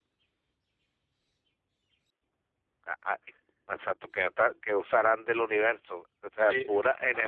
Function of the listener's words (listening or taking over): taking over